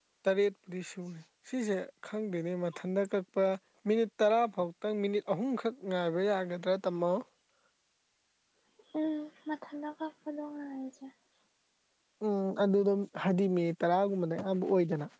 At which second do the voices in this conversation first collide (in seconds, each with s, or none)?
none